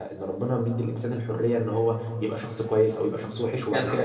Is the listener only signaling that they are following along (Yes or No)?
No